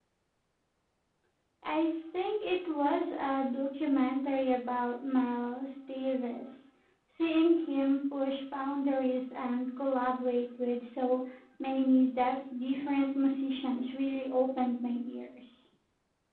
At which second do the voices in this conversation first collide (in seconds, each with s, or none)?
none